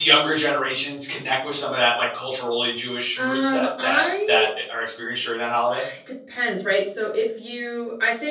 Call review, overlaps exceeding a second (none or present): present